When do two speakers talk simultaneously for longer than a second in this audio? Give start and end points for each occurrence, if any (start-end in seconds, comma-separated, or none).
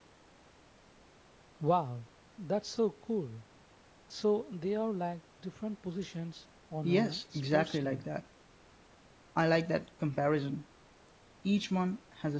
6.8-8.0